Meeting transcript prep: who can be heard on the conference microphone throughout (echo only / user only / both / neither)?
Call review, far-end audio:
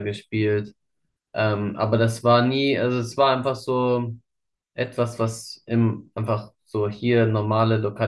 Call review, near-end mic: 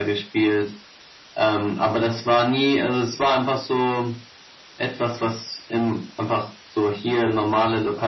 echo only